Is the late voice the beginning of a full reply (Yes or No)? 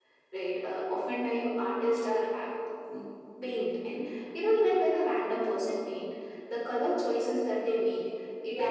No